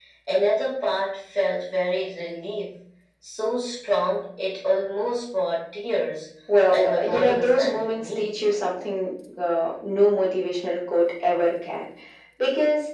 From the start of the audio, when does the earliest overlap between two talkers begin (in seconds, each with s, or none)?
6.7 s